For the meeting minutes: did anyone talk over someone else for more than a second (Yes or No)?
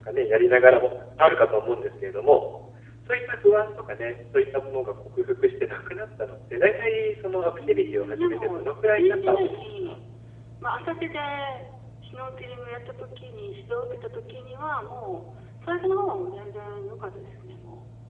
Yes